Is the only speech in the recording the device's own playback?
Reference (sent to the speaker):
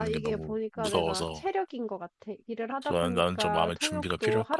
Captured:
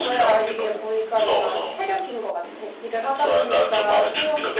Yes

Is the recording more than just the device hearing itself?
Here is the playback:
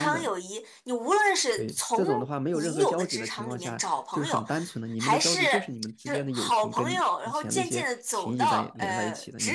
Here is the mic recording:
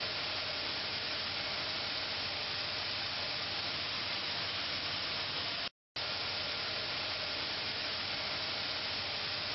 No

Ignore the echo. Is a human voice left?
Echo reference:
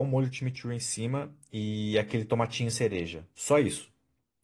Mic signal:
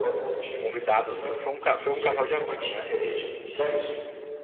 Yes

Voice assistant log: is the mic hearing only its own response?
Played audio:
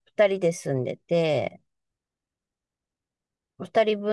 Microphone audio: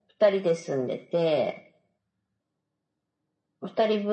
Yes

